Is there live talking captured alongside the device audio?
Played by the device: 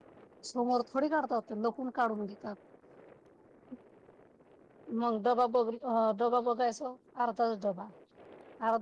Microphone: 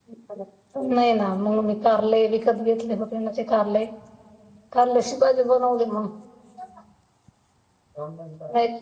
Yes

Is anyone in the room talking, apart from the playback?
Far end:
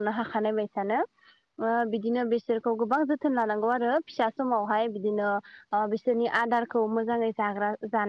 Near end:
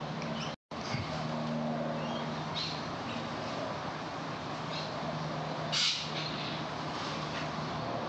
No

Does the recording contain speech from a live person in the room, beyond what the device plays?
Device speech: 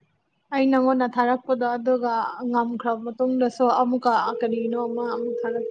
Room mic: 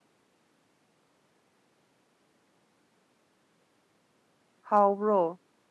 Yes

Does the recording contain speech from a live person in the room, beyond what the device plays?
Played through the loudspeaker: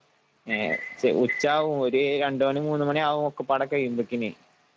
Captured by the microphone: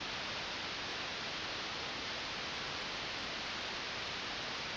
No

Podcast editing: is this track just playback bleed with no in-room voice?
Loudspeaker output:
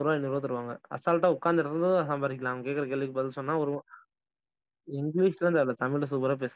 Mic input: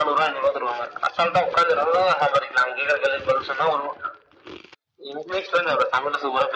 Yes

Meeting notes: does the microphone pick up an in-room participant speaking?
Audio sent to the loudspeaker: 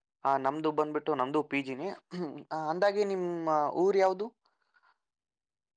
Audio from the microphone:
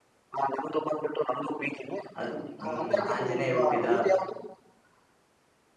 Yes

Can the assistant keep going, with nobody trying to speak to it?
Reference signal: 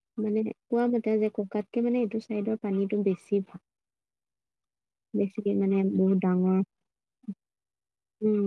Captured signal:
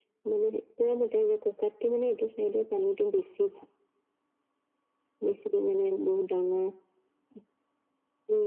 Yes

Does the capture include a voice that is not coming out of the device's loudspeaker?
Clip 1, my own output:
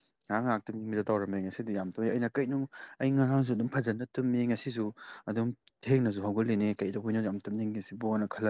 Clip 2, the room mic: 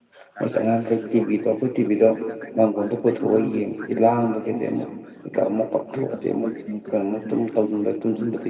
Yes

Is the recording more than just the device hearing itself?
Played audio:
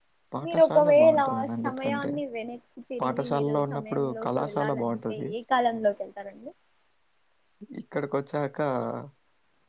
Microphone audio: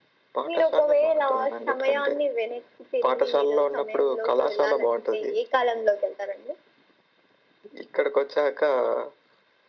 No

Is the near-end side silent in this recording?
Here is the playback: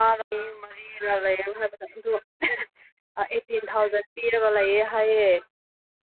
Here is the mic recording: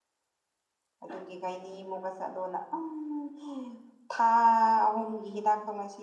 No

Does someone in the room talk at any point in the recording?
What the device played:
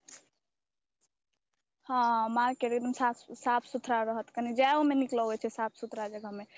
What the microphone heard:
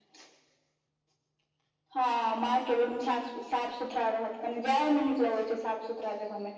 No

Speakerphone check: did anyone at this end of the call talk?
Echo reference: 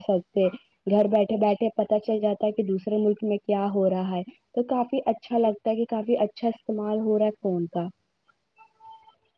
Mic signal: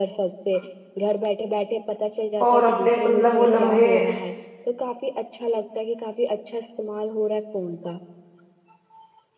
Yes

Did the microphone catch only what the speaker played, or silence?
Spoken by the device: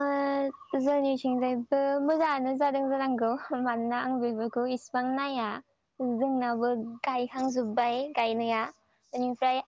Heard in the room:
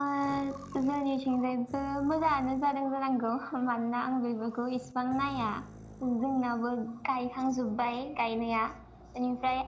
Yes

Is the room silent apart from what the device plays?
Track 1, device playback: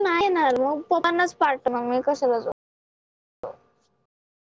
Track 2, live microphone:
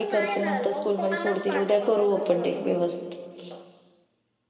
No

